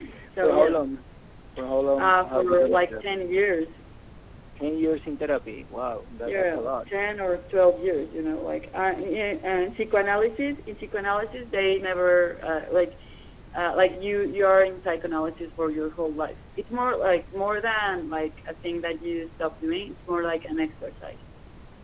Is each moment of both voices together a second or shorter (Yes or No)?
No